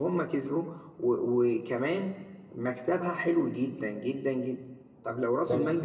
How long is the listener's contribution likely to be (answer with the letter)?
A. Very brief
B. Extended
A